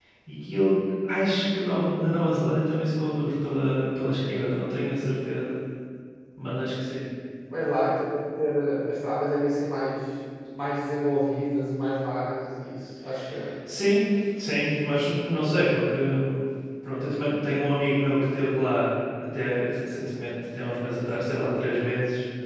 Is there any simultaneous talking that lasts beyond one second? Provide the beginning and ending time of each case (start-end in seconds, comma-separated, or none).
none